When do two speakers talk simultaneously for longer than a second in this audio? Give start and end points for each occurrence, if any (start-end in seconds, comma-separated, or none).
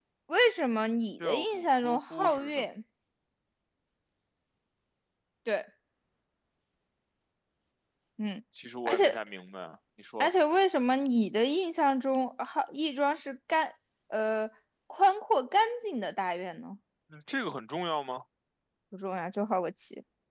1.2-2.7